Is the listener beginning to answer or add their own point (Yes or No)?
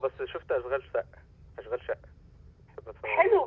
Yes